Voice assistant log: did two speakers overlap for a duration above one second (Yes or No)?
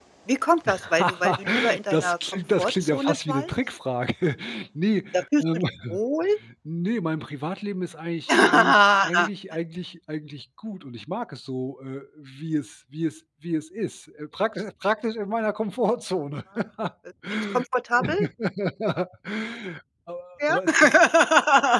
Yes